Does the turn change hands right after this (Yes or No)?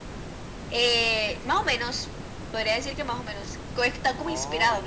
No